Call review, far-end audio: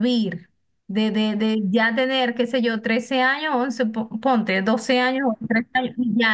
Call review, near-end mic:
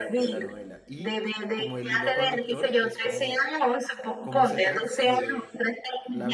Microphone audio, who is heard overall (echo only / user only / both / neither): both